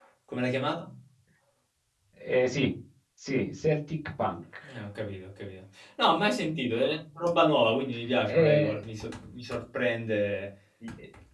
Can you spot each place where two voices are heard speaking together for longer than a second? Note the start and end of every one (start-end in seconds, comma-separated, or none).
none